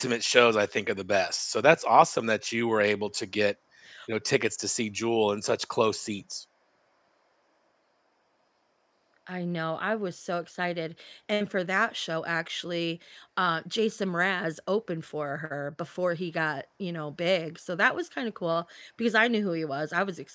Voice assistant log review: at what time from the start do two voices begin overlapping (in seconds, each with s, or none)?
none